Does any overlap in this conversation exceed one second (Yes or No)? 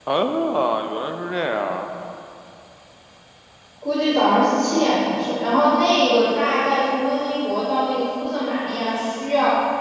No